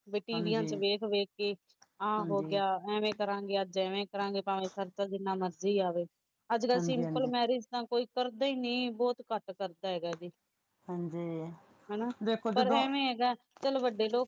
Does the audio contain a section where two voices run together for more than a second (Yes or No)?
No